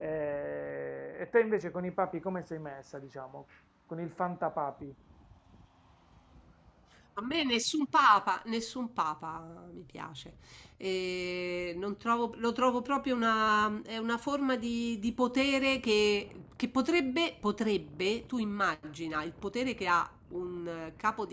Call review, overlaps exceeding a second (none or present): none